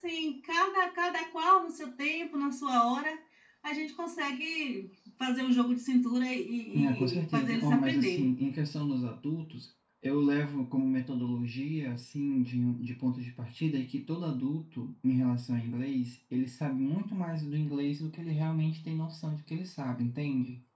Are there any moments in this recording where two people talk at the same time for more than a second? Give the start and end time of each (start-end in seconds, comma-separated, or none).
6.7-8.3